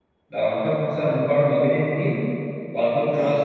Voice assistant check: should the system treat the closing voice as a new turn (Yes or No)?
No